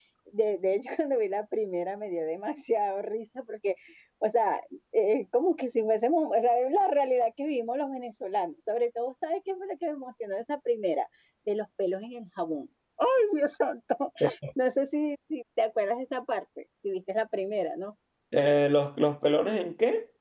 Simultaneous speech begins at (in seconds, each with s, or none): none